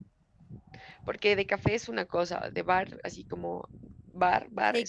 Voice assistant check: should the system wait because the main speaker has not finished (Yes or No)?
No